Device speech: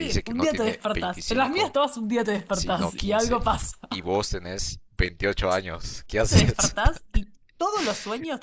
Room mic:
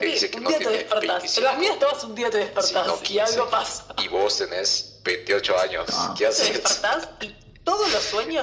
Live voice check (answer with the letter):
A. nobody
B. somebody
B